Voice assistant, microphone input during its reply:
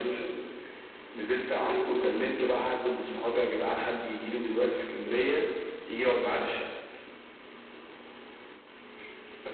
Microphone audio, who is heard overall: echo only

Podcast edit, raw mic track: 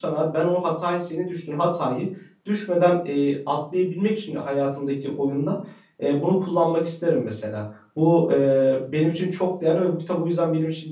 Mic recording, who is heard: user only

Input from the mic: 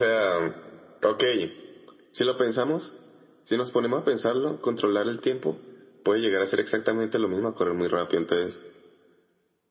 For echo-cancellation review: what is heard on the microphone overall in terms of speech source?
echo only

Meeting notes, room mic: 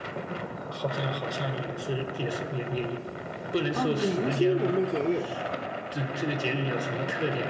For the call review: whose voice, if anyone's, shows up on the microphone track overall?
both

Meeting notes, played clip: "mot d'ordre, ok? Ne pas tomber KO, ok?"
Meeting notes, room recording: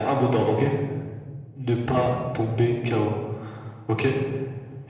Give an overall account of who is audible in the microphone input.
echo only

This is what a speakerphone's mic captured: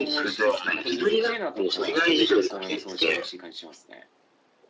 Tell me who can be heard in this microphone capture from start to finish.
both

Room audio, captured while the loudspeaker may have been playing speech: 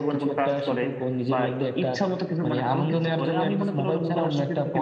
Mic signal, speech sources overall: echo only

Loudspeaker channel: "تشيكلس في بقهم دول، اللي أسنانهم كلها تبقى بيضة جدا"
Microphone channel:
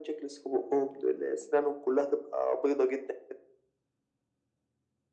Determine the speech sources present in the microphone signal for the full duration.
echo only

